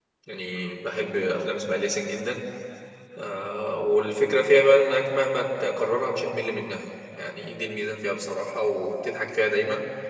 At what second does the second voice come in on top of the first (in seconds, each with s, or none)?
none